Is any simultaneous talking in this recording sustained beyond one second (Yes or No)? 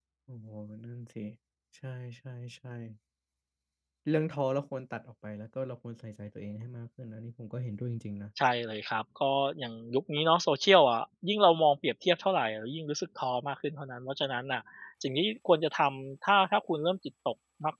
No